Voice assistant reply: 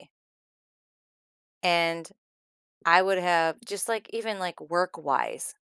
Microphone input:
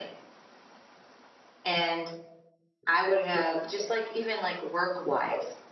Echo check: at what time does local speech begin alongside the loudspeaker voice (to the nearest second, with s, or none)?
none